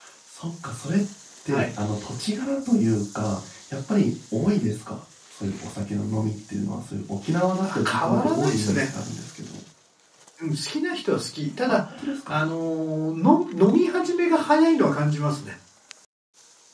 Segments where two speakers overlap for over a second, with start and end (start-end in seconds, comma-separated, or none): 7.6-8.9